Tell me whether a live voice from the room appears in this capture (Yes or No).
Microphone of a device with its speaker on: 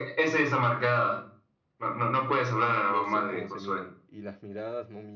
Yes